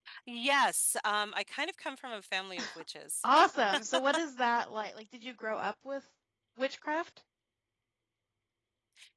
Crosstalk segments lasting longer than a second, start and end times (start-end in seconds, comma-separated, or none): none